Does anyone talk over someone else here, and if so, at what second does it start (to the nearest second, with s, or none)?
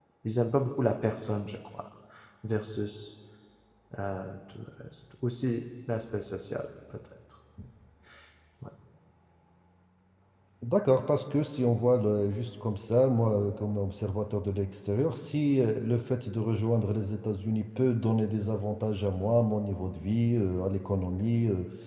none